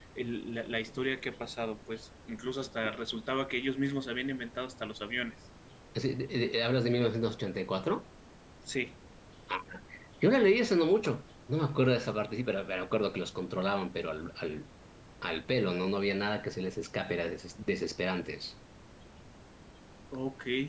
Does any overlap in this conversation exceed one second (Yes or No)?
No